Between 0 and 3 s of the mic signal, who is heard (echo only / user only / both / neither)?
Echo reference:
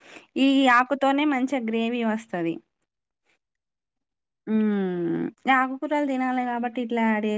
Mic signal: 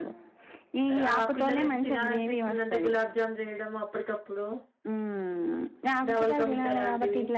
both